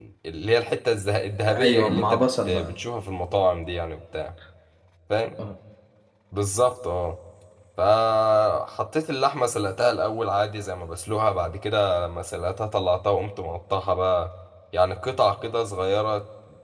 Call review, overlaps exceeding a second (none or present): present